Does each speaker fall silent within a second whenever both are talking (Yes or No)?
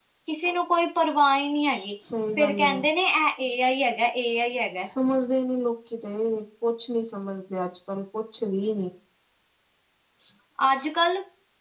Yes